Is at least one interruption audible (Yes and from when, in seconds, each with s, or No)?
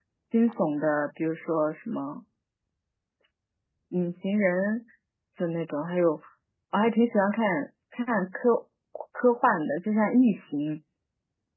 No